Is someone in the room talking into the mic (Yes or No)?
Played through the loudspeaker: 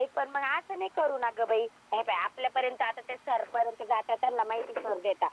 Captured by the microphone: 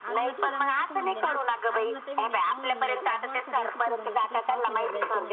Yes